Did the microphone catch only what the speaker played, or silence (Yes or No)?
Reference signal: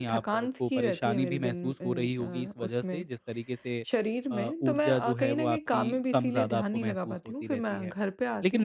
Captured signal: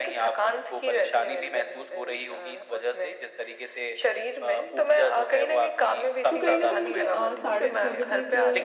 No